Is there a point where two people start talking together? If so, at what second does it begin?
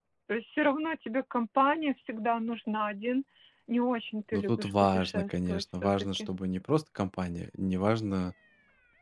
4.3 s

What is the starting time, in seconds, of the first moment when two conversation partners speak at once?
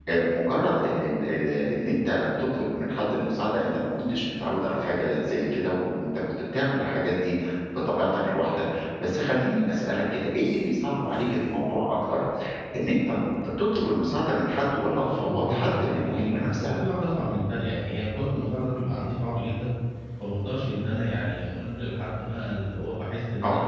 15.0 s

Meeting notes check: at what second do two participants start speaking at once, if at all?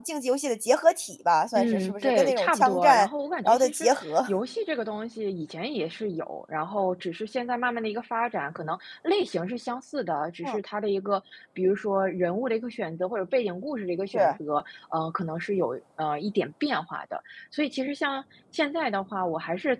1.6 s

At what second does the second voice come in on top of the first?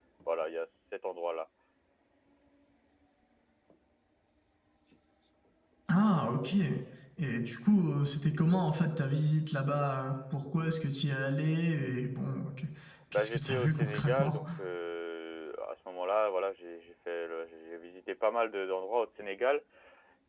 13.1 s

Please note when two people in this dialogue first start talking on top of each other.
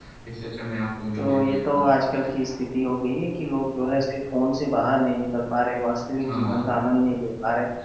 1.1 s

